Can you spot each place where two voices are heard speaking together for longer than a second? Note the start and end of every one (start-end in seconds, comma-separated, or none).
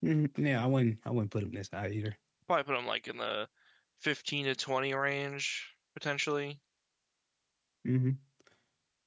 none